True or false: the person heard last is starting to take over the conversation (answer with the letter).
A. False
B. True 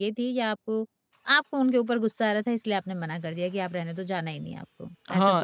B